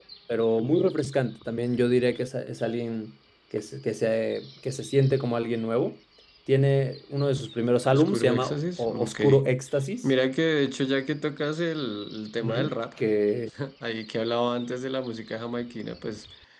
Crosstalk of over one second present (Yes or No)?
Yes